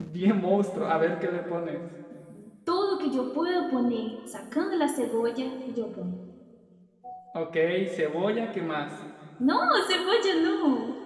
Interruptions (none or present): none